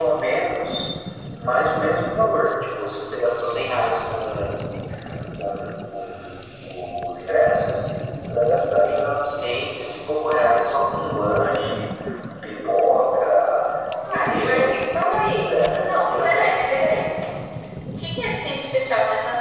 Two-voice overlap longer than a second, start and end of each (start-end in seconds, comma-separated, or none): 14.1-16.6